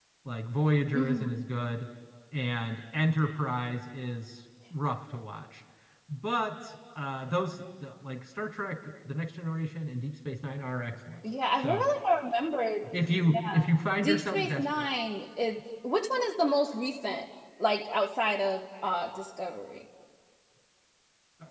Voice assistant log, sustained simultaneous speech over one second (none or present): present